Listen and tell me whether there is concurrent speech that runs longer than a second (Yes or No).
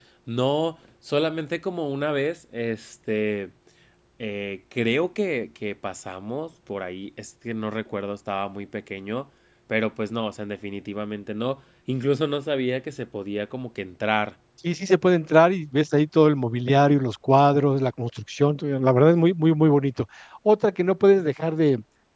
No